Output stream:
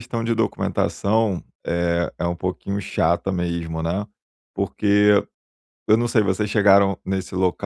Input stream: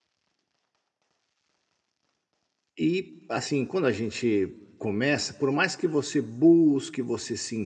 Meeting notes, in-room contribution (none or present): present